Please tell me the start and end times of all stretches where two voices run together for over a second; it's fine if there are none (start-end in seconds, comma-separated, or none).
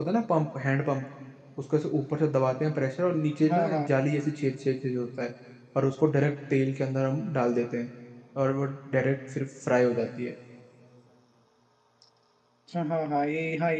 none